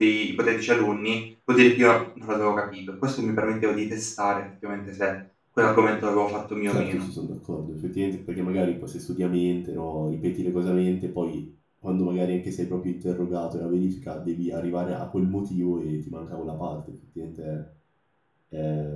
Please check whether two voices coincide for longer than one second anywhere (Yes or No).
No